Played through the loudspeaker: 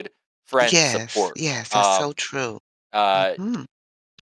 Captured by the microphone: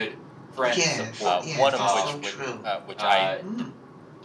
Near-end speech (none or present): present